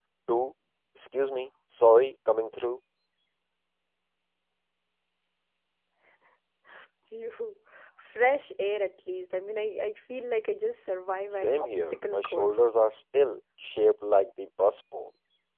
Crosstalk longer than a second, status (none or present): present